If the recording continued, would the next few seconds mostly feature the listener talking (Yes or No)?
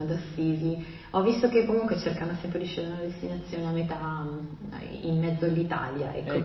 Yes